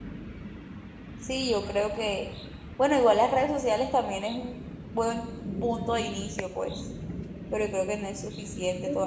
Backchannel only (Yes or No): No